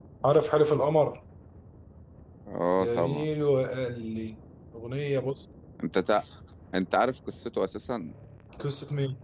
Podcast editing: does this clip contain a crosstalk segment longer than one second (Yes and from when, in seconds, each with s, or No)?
No